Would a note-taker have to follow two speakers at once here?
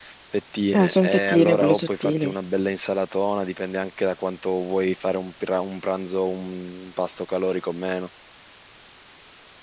Yes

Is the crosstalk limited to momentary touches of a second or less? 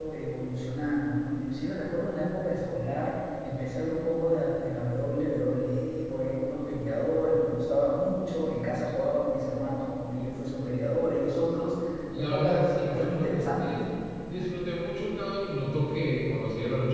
No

